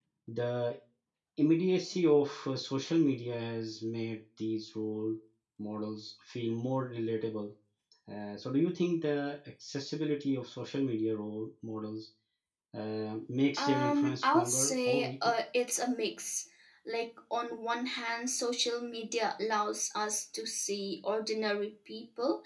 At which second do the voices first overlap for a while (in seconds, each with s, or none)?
13.6 s